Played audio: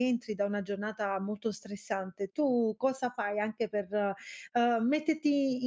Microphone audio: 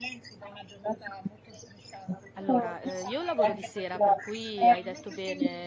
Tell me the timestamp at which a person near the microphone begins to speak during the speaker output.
2 s

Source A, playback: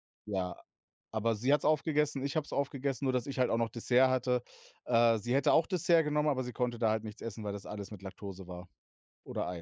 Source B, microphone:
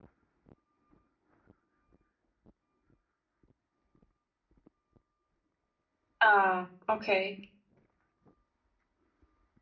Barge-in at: 6 s

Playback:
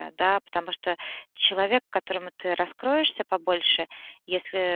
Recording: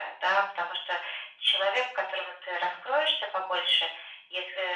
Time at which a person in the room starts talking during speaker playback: none

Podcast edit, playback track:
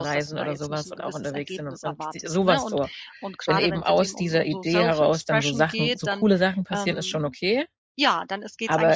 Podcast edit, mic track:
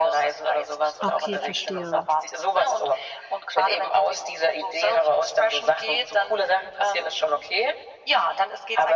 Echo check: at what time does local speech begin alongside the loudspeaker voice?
1 s

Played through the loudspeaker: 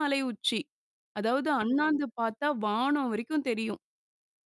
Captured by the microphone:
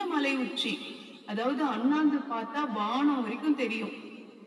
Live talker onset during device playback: none

